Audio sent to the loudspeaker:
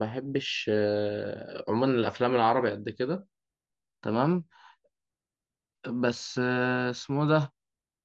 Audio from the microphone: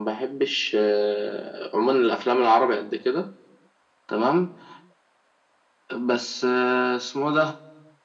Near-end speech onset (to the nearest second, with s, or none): none